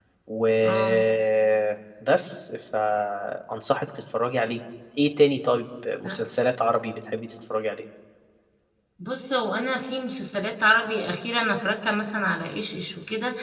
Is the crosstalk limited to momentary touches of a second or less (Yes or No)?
Yes